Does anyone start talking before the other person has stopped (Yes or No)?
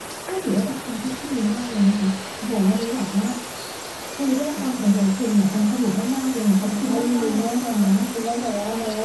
Yes